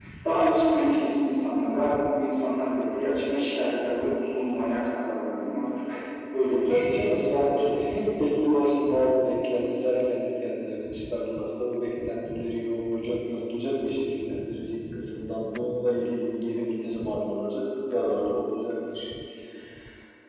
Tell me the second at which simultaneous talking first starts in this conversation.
6.5 s

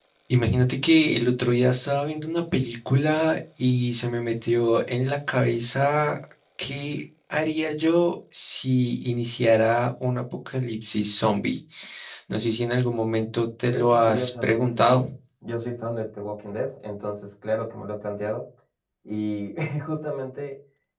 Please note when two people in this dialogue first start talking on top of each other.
13.6 s

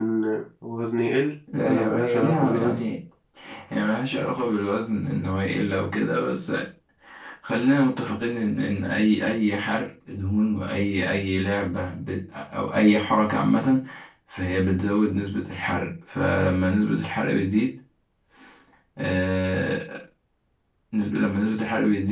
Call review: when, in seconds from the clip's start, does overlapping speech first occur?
1.5 s

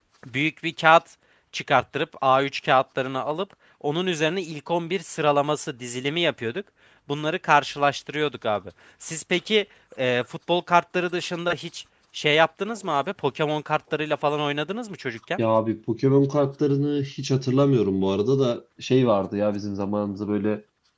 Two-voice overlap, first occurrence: none

